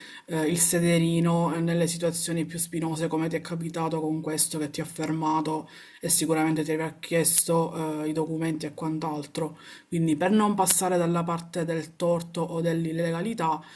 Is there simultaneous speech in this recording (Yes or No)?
No